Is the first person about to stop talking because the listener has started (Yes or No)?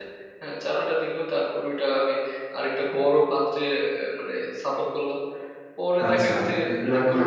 Yes